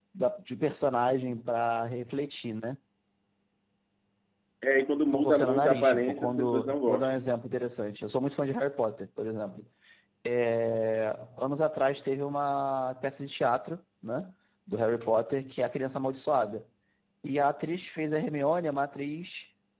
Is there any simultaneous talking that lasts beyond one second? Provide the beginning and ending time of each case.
5.1-7.2

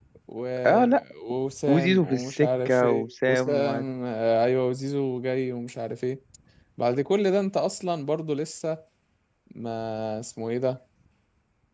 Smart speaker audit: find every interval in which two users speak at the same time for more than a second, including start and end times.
1.7-3.8

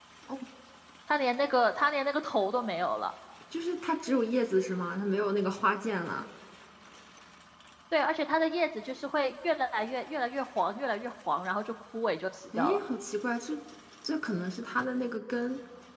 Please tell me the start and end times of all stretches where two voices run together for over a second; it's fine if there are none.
none

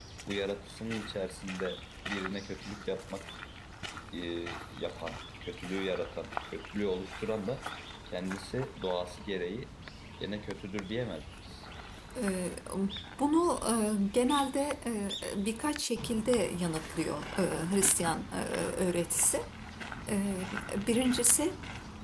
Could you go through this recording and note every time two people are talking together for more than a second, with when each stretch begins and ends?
none

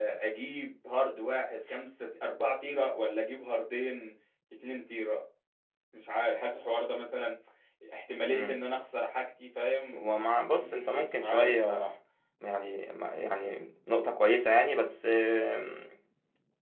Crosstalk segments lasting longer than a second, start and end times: 10.5-11.9

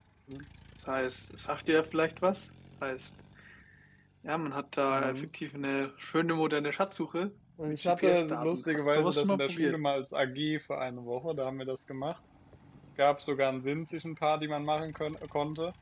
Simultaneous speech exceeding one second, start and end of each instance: 7.7-9.8

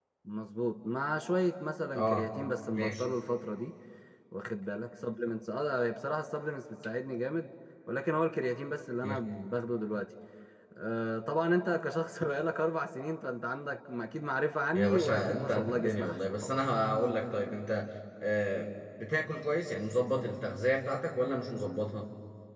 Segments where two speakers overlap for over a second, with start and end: 14.7-16.6

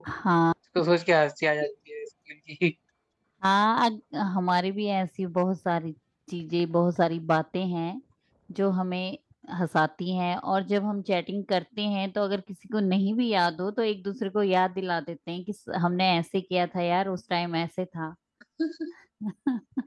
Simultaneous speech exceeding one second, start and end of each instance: none

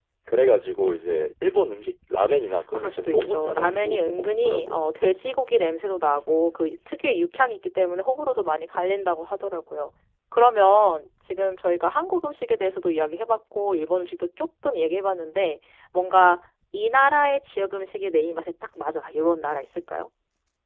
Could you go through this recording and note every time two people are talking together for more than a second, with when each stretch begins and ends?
2.7-4.8

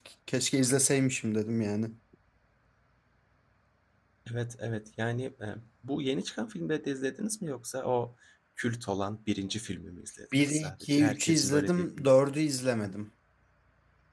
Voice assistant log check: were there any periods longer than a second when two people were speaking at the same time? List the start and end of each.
10.4-12.1

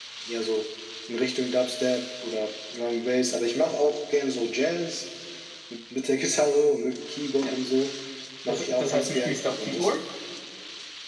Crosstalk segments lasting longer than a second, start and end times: 8.5-9.9

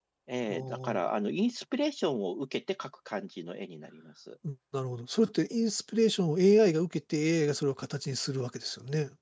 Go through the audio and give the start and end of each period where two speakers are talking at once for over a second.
none

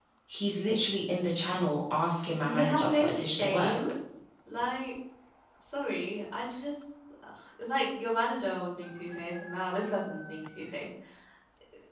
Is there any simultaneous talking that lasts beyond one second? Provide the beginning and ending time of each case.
2.4-3.8

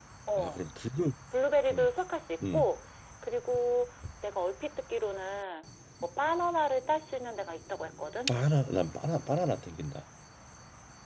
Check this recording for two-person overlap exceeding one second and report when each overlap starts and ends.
none

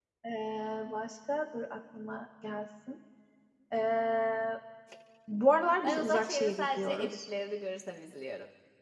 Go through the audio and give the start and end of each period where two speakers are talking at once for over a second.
5.8-7.2

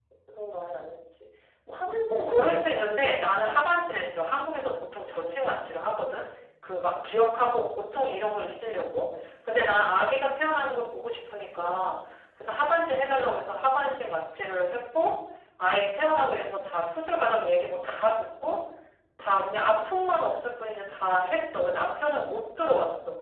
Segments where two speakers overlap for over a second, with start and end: 2.1-3.6

